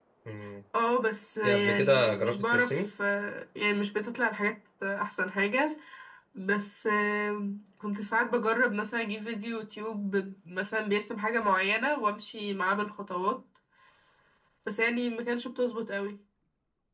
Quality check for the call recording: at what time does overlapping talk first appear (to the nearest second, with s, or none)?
1 s